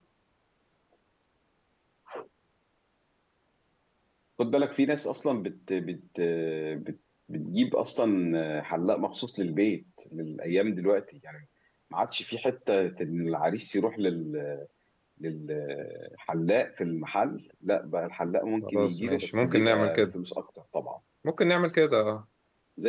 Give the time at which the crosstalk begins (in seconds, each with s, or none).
18.6 s